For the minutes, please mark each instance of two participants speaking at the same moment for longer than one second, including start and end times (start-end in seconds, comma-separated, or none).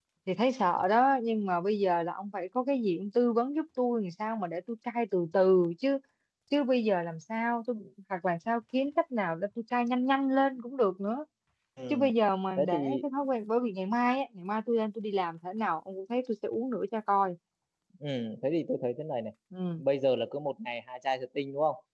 none